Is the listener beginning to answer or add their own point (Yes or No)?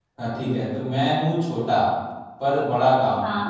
No